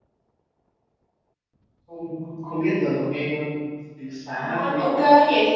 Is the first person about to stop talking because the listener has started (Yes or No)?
Yes